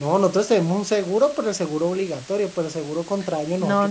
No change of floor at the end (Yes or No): No